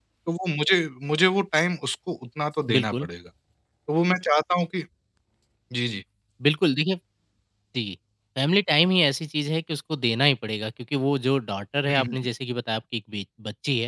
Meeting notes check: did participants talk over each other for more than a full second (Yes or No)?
No